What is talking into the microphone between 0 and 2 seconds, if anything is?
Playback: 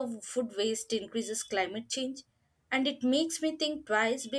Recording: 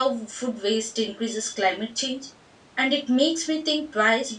echo only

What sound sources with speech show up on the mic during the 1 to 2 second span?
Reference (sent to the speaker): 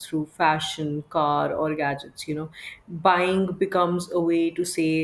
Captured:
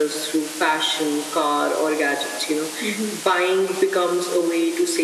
echo only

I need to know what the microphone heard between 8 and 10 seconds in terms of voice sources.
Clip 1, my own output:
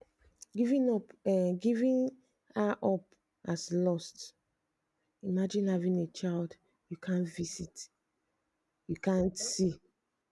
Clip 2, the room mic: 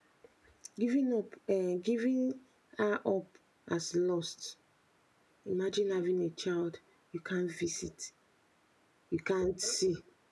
echo only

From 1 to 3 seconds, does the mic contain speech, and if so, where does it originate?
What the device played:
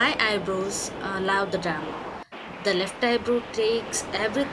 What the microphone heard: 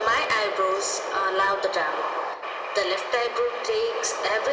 echo only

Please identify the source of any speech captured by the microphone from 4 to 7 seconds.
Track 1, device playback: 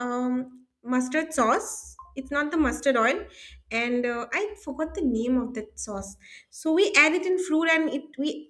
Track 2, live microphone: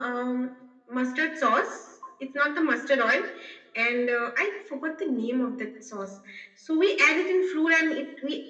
echo only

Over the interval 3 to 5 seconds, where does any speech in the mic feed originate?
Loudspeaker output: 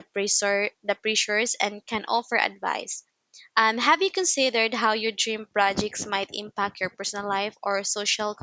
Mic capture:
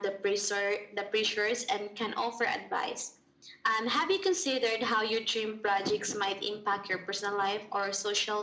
echo only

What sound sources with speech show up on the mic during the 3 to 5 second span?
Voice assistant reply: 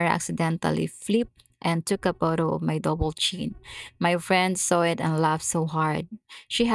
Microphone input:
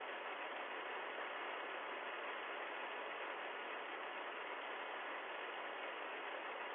neither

